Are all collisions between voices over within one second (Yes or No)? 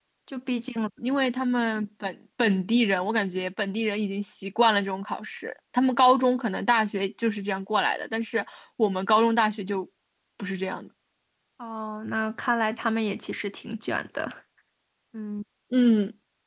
Yes